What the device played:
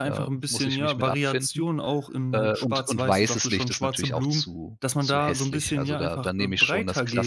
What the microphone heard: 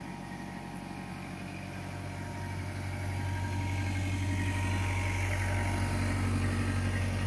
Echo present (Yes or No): No